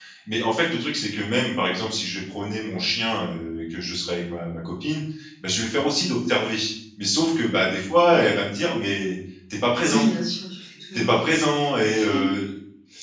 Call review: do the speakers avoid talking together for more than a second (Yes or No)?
Yes